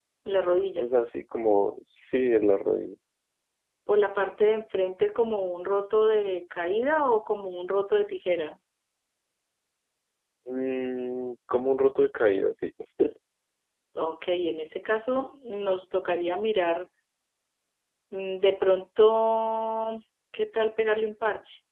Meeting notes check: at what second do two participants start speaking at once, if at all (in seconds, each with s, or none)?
none